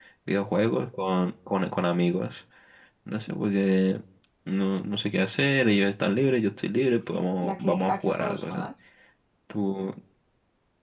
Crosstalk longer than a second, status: present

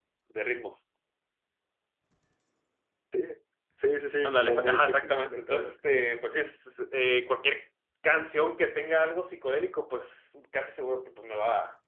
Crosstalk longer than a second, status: present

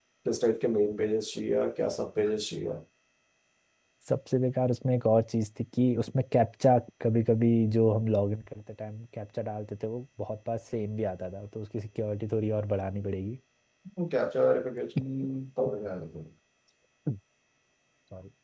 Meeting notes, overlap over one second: none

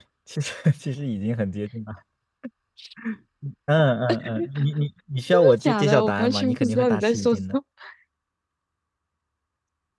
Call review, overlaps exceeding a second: present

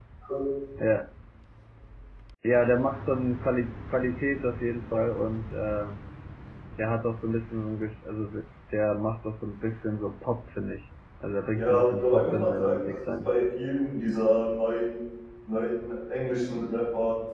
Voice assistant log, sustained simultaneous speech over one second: present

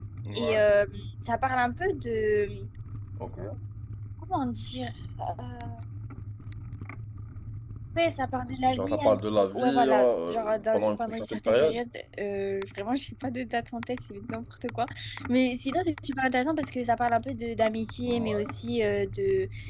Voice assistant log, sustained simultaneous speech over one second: present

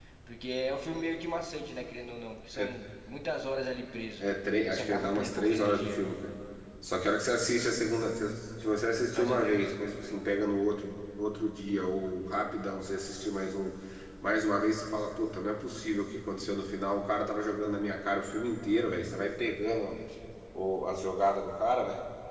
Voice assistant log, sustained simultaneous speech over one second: present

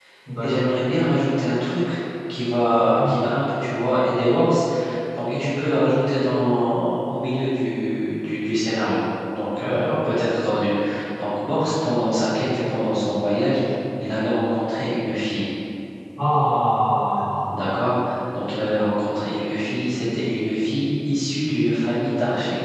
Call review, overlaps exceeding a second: none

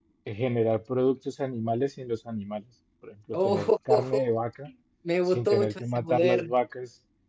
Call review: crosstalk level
present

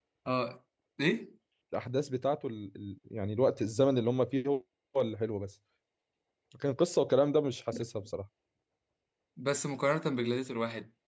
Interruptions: none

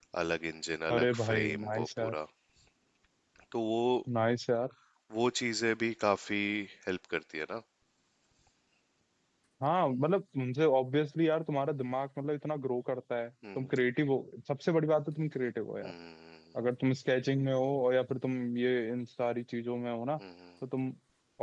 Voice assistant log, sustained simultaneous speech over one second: present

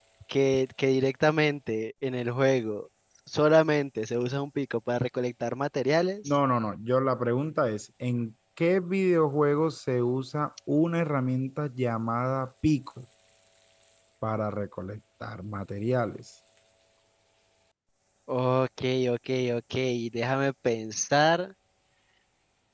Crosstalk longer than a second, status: none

